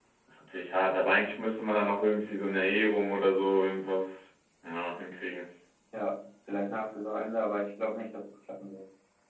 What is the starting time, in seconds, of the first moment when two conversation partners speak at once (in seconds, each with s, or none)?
none